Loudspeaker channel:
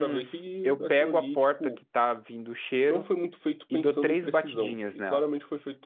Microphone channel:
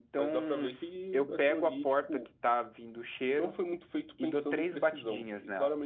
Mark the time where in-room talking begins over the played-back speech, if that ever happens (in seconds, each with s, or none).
none